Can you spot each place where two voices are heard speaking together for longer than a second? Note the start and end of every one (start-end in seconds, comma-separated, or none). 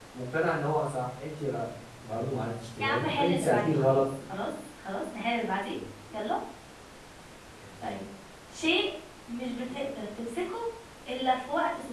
2.8-4.0